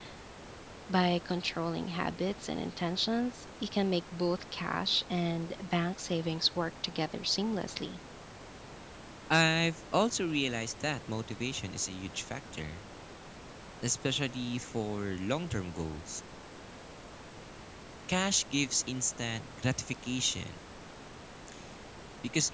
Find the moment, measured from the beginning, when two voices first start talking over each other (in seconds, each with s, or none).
none